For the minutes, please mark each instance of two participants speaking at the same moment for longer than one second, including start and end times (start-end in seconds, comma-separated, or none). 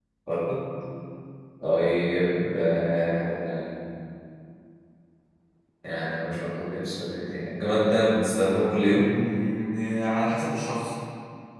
none